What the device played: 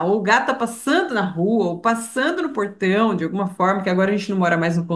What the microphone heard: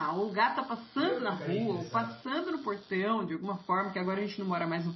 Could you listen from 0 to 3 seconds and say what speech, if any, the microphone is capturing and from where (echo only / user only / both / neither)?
both